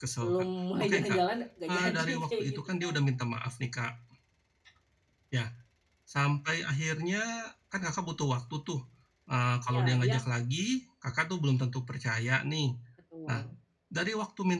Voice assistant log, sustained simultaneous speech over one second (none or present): present